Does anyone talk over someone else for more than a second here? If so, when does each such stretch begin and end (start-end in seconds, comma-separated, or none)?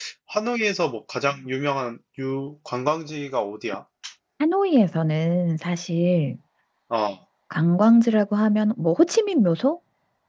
none